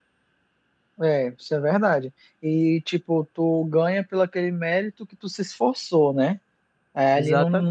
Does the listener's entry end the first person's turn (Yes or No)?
No